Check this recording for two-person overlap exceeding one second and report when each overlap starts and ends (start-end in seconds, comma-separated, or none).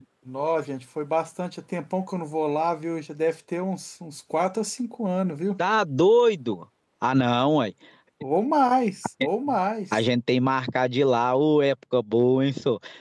none